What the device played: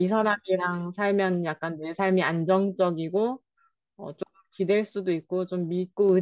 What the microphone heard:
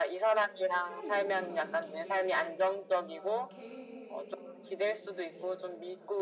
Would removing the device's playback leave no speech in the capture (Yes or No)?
No